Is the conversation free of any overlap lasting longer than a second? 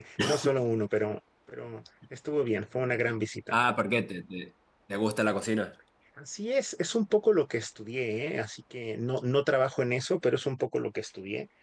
Yes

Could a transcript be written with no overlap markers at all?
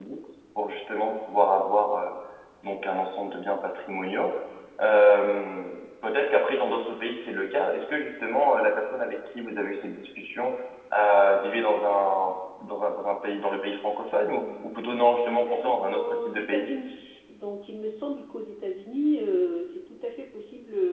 No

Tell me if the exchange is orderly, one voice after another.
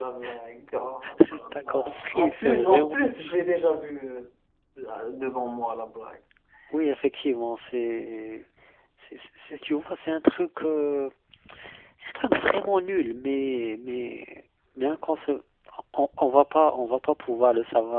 No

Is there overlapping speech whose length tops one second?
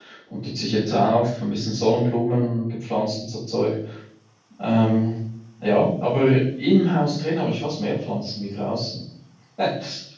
No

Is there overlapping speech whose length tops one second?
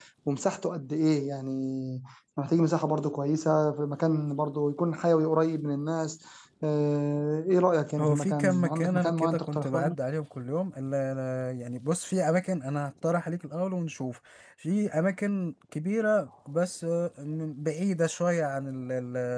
Yes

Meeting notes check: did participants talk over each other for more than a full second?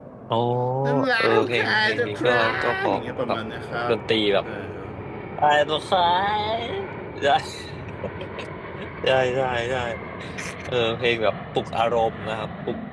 Yes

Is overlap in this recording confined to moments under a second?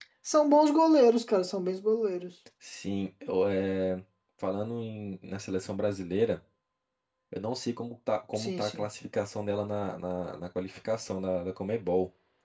Yes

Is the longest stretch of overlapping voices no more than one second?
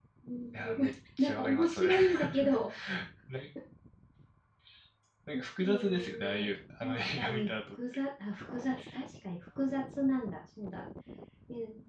No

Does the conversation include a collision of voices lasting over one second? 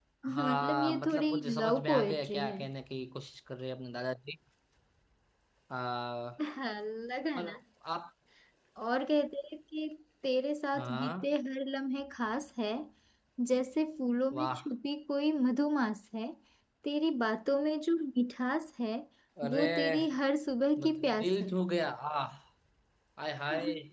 Yes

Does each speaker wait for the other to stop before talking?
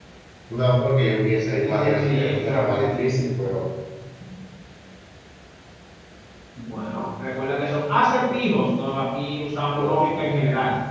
No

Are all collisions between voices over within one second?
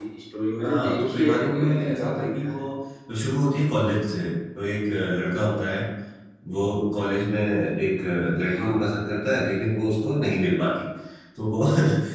No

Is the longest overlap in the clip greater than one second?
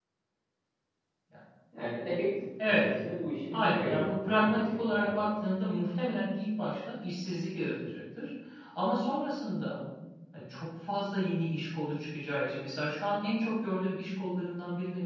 Yes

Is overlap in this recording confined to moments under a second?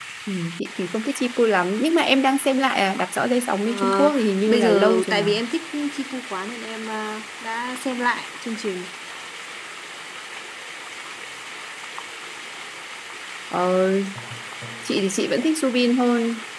No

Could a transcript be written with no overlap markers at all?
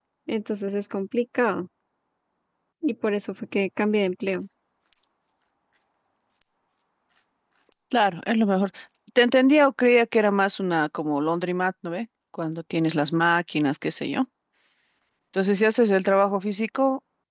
Yes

